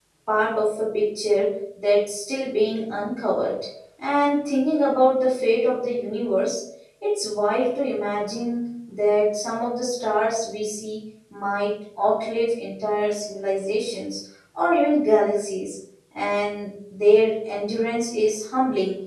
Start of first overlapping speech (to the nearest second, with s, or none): none